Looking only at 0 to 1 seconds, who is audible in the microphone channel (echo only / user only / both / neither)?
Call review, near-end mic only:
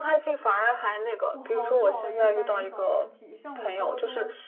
echo only